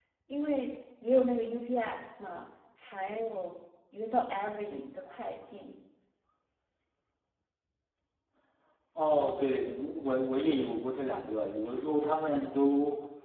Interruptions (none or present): none